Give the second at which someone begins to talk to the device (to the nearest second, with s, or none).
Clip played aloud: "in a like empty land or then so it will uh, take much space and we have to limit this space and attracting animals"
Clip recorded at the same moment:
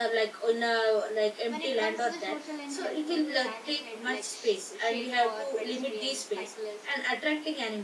1 s